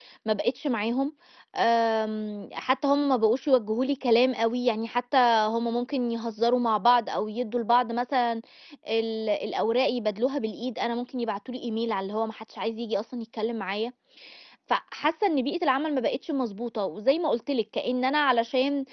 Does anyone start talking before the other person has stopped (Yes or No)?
No